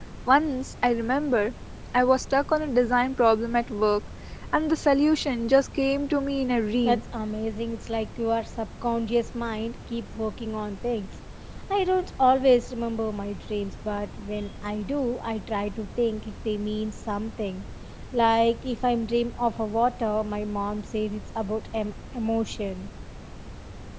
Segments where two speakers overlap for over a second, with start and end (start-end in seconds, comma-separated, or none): none